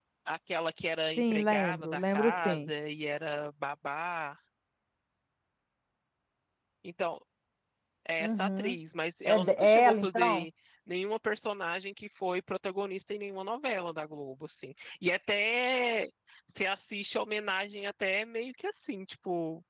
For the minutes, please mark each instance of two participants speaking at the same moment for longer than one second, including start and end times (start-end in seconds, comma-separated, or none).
1.2-2.7, 9.2-10.5